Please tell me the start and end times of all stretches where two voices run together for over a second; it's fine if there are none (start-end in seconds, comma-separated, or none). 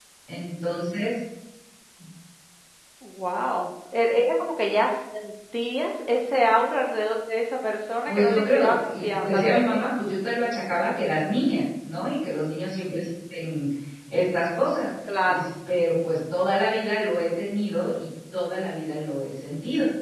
8.1-9.9